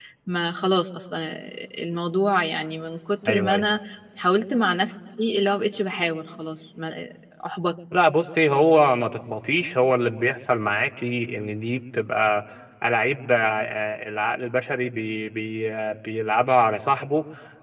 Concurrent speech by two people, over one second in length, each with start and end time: none

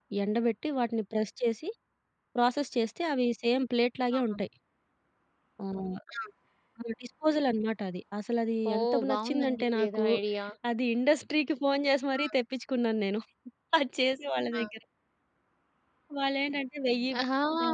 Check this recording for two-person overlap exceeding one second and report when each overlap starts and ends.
8.7-10.0

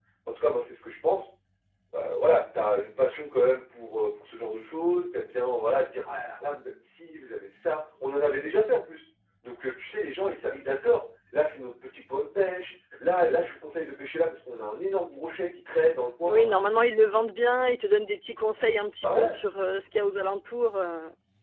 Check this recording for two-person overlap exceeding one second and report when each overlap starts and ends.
none

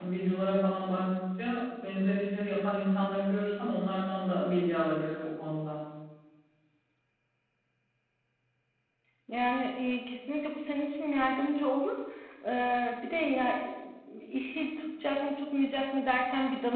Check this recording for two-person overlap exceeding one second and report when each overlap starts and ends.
none

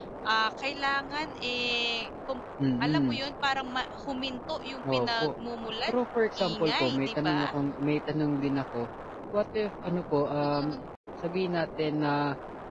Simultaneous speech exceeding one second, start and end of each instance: 5.9-7.4

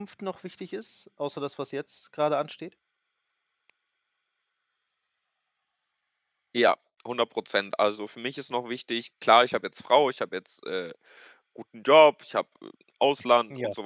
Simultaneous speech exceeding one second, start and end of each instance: none

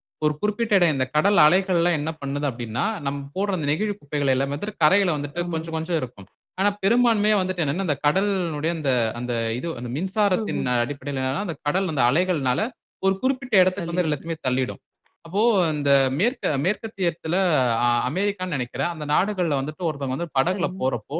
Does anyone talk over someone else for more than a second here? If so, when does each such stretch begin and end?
none

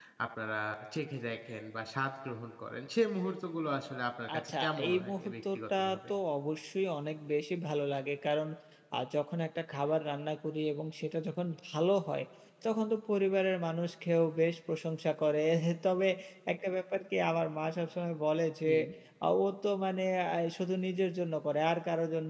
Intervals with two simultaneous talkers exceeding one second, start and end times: 4.3-6.1

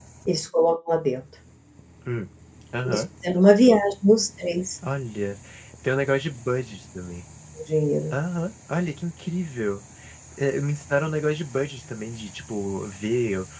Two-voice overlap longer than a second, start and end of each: none

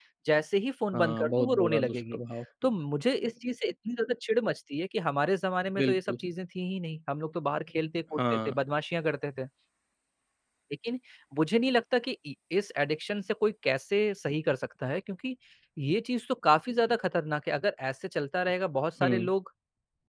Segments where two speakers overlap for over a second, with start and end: 0.9-2.2

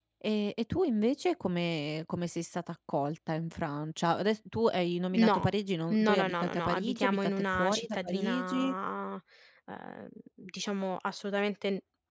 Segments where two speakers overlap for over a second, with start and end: 5.9-8.7

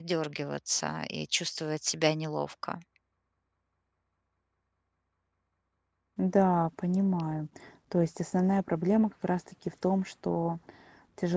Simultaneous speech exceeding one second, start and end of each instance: none

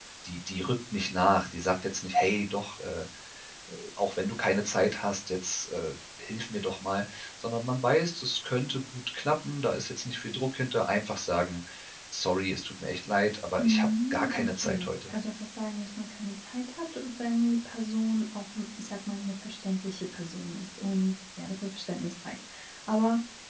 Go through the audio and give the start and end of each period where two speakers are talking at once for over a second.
13.6-15.1

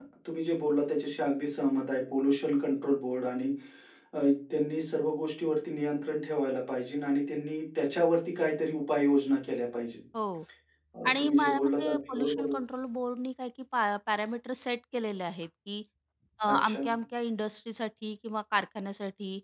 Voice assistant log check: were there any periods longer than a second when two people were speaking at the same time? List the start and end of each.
11.1-12.6

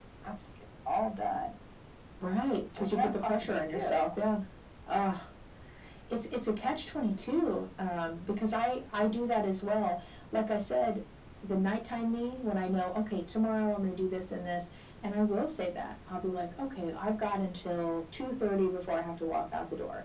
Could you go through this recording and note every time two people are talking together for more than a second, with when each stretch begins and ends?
2.8-4.0

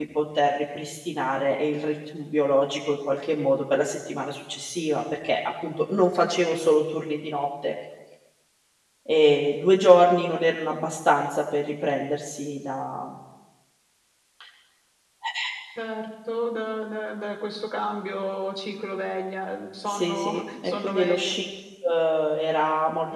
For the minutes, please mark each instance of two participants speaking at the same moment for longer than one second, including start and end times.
19.9-21.2

